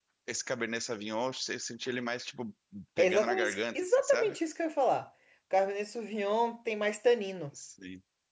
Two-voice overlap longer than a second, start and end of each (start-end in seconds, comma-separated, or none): 3.0-4.4